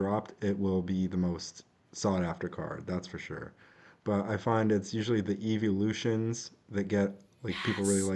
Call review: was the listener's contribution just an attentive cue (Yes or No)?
Yes